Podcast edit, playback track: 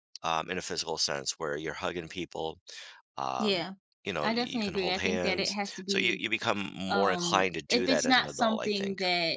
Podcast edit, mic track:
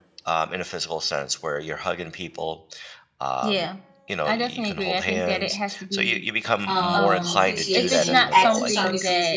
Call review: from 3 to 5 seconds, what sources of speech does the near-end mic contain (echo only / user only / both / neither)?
echo only